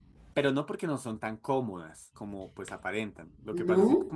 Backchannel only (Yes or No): Yes